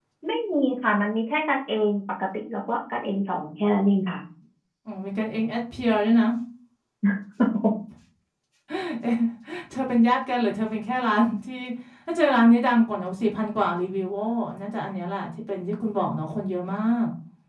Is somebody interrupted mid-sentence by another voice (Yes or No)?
No